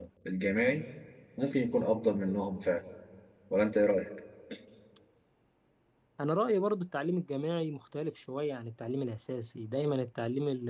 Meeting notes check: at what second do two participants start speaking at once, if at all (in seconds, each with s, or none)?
none